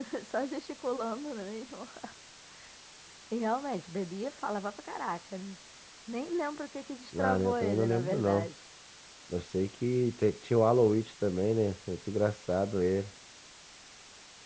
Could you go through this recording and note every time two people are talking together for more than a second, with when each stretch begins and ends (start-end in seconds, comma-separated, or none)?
7.2-8.5